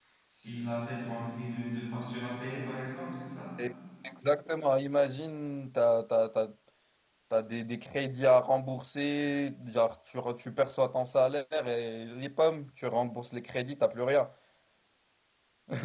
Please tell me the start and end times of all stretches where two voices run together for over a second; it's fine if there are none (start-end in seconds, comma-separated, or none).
none